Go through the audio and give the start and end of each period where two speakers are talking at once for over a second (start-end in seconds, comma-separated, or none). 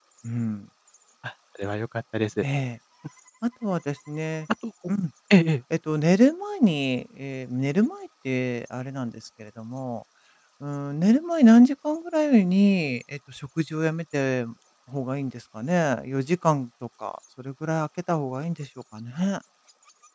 none